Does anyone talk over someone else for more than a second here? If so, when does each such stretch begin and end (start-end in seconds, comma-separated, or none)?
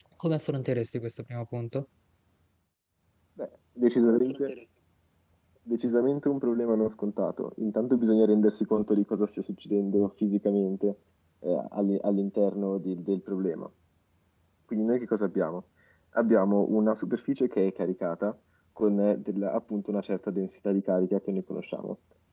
none